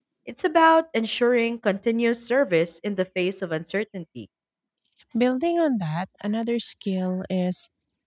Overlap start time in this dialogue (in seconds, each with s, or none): none